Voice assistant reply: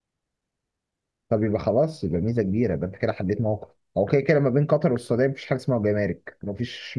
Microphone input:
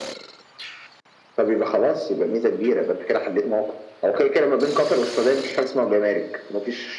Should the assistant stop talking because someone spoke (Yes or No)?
No